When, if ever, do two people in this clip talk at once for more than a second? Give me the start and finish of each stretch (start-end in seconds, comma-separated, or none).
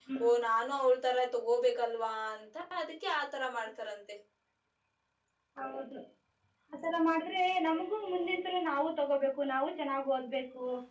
none